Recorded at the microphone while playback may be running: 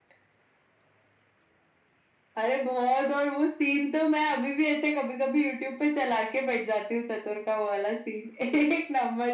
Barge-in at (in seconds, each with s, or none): none